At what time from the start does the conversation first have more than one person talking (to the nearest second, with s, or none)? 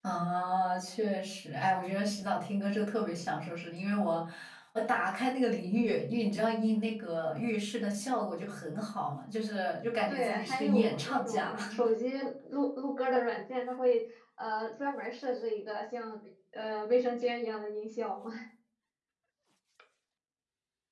10 s